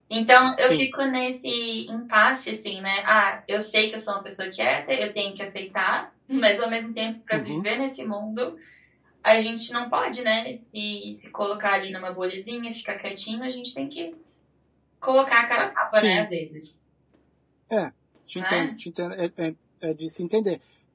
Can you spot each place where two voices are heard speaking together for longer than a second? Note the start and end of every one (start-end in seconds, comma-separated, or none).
none